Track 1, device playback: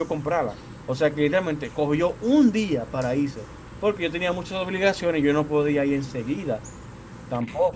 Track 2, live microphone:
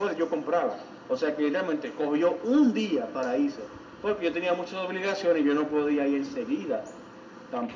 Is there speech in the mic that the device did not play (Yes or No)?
No